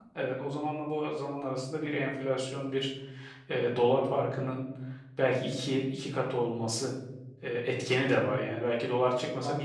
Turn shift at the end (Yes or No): Yes